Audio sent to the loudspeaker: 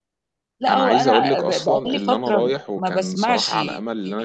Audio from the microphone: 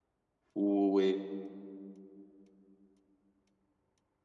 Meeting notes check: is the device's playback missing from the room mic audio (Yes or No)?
Yes